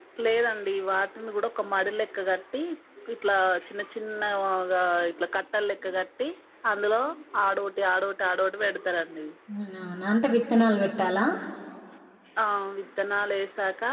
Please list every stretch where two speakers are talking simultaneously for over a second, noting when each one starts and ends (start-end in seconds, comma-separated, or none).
none